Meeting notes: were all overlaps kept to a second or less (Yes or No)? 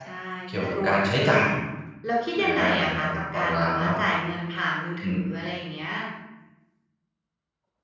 No